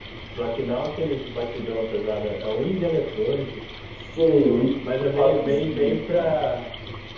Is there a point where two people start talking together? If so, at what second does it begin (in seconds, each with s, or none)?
4.8 s